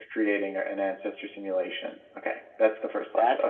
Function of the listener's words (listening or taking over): taking over